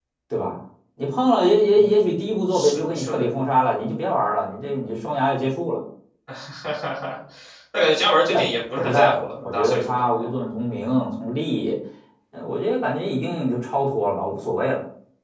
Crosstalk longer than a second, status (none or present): present